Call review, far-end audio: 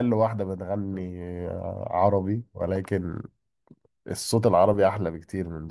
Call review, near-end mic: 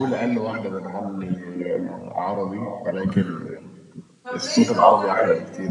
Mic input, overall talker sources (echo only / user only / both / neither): both